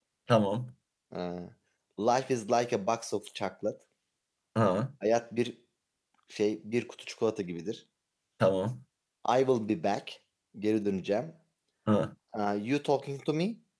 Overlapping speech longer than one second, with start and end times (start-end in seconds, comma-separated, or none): none